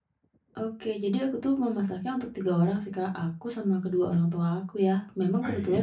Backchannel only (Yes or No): Yes